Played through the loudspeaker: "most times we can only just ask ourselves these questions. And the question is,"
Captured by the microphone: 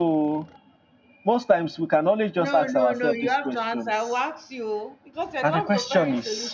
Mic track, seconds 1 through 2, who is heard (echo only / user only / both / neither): echo only